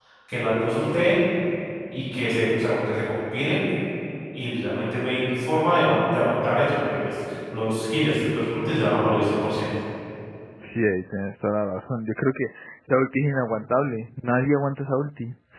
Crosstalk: none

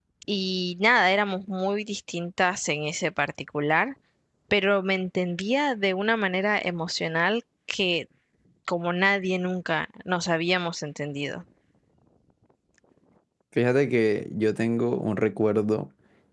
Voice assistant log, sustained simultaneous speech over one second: none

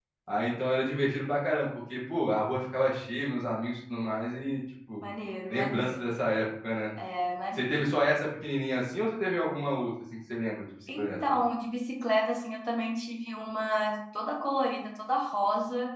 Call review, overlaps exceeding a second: none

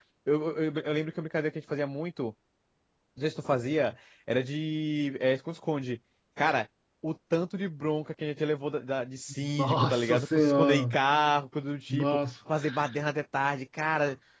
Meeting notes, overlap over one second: present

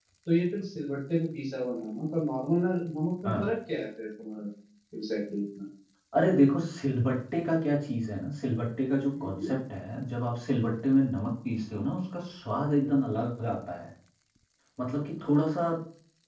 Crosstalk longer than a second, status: none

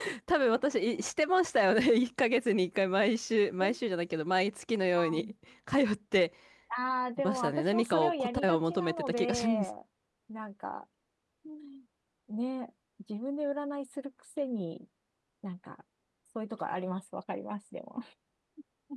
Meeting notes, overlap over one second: present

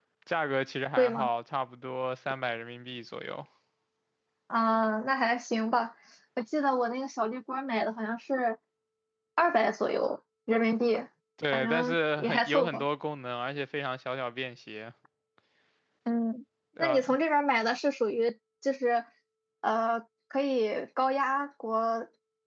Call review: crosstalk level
present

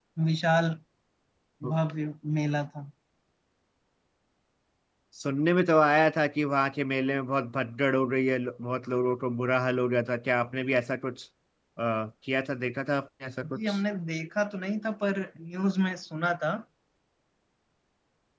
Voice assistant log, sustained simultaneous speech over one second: none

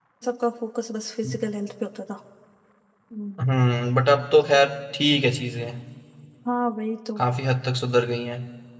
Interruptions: none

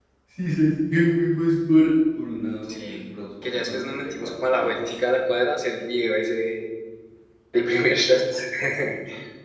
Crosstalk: present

